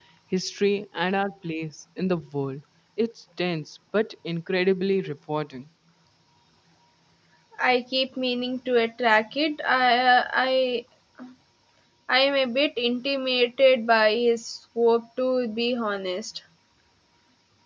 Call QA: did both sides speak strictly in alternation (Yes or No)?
Yes